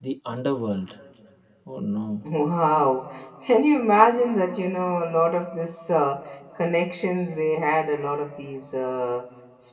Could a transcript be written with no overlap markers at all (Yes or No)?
Yes